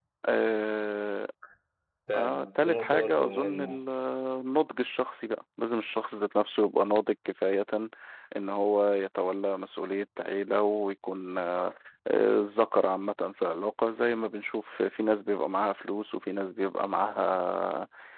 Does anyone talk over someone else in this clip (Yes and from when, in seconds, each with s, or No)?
Yes, from 2.1 s